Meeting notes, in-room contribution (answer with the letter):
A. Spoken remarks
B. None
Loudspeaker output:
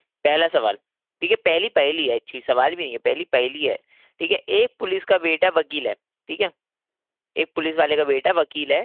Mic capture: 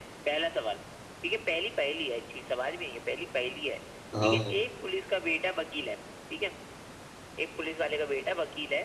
A